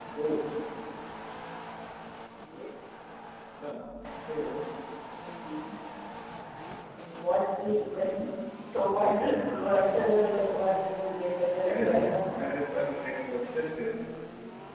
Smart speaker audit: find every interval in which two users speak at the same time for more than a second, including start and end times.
11.6-13.0

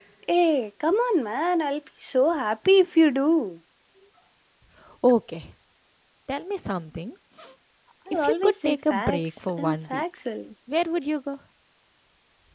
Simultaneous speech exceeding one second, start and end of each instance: 8.1-10.0

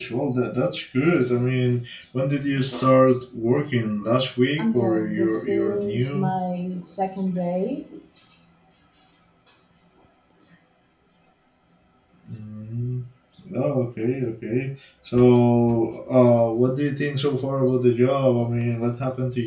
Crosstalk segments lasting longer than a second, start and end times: 4.6-6.3

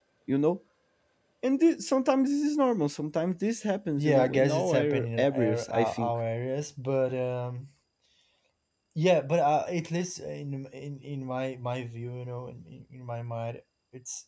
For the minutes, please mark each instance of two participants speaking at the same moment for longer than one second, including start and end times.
4.0-6.1

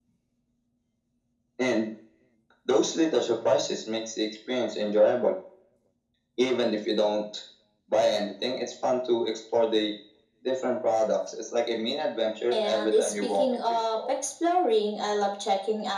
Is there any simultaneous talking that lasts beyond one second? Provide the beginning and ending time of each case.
12.5-14.0

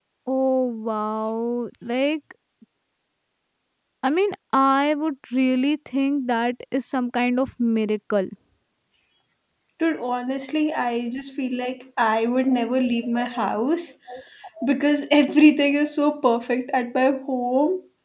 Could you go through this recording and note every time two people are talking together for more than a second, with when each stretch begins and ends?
none

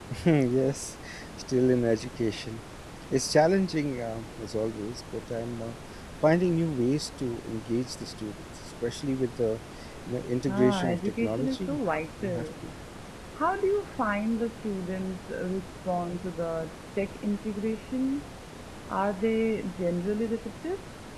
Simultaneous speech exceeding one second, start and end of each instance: 10.5-11.8

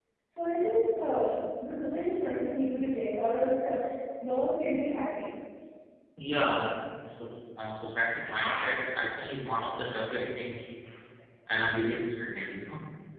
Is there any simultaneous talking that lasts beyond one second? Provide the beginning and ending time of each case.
none

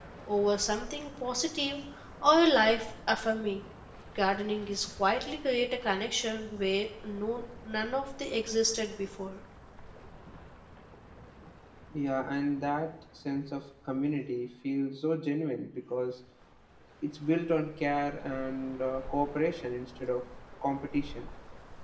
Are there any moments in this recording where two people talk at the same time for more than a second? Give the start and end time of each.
none

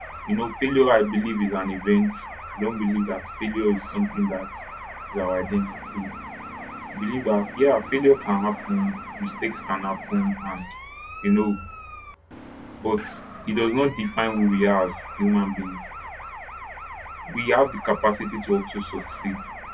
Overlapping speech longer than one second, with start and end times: none

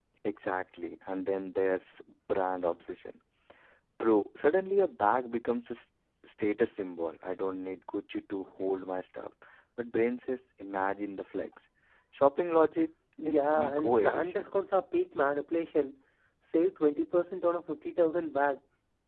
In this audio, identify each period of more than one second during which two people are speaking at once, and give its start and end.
13.2-14.5

